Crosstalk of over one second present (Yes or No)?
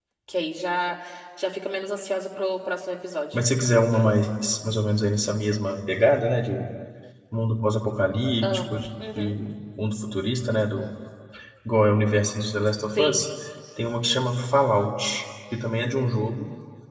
No